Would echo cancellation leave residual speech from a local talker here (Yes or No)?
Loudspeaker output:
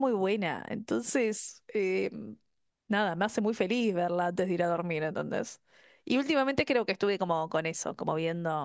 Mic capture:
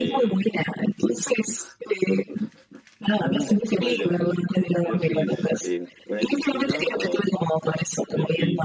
Yes